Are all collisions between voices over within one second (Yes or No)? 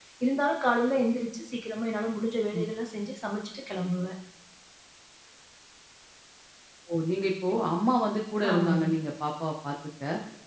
Yes